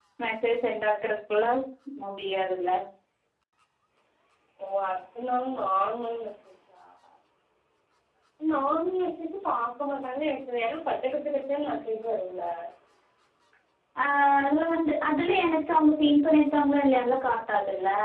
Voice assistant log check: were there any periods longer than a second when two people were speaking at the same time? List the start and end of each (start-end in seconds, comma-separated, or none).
none